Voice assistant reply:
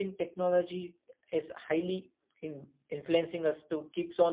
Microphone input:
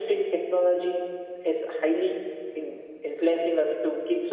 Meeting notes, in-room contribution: none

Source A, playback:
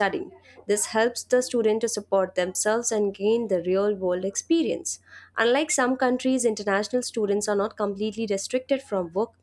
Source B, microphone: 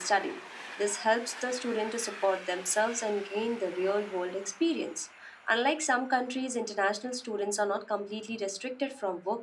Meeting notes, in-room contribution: none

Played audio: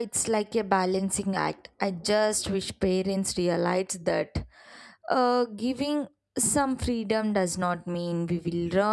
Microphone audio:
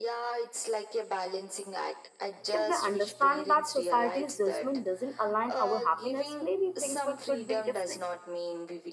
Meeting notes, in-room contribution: present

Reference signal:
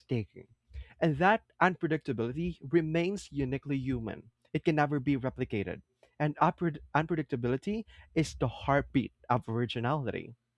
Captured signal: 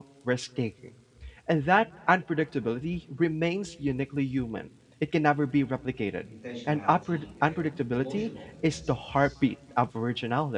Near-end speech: present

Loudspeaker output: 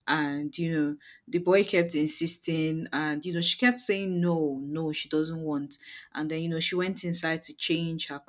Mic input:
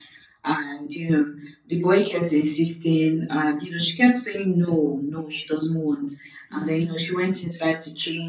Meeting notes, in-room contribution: present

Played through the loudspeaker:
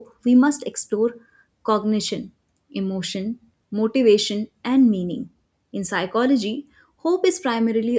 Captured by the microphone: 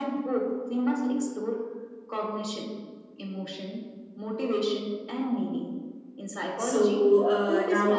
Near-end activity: present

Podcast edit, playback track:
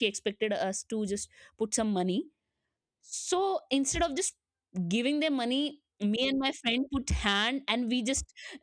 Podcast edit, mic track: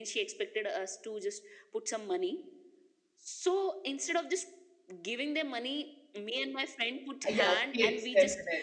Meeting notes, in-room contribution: present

